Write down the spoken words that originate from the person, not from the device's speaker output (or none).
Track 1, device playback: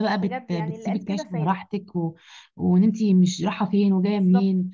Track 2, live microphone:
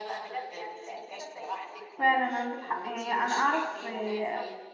فعلا عندك حق يعني انا اعرف آه،